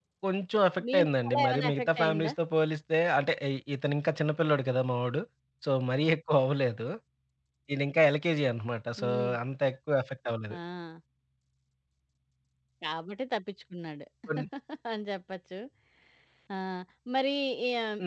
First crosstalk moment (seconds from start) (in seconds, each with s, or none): 0.9 s